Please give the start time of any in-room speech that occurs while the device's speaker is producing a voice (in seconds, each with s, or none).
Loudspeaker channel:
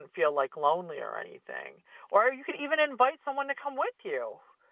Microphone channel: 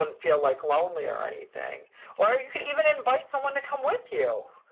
none